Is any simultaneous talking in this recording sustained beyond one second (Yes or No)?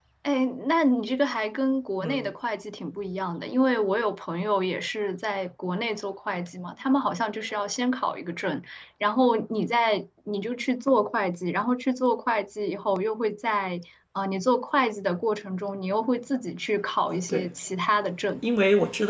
No